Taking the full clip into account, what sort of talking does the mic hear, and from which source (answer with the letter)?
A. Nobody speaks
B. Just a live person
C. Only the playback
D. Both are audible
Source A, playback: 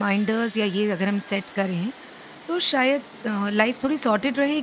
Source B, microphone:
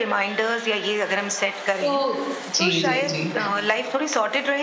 D